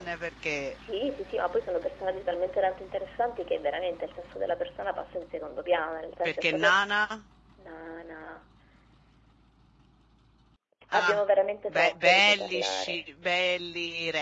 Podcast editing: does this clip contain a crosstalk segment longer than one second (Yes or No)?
Yes